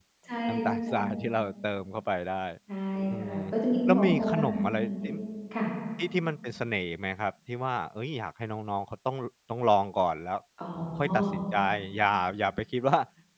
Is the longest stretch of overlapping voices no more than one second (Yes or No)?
No